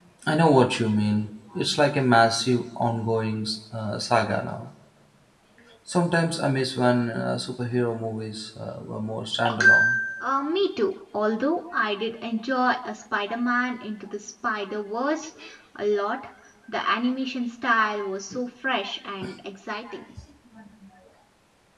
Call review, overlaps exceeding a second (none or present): none